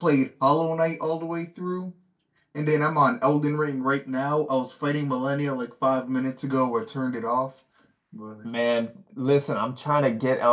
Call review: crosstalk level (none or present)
none